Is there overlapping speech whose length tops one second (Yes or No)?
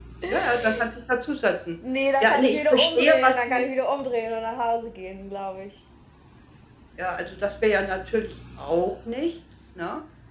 Yes